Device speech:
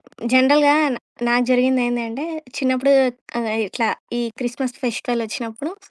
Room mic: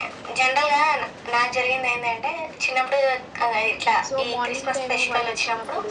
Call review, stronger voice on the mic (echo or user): echo